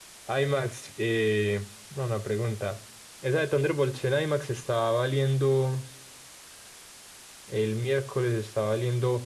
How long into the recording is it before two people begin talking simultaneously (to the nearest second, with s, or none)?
none